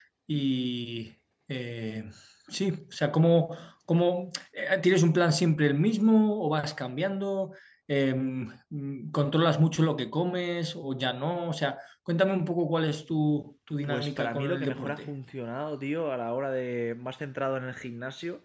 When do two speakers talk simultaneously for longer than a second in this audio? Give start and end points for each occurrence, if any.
13.8-15.1

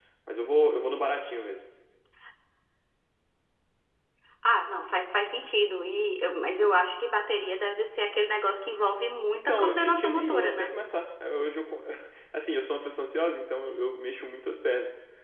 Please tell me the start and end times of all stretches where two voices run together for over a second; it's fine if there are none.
9.3-10.7

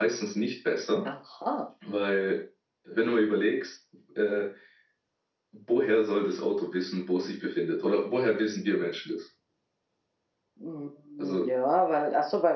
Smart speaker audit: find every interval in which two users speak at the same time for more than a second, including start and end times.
none

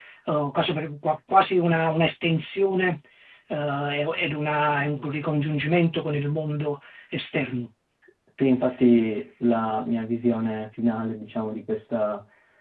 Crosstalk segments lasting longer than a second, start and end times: none

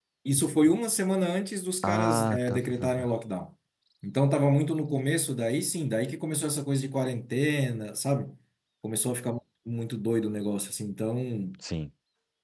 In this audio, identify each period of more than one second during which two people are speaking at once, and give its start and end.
1.8-3.1

